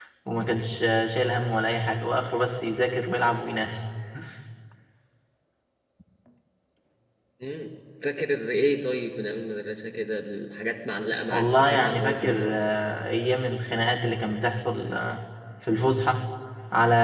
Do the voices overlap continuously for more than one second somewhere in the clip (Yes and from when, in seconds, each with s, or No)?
Yes, from 11.3 s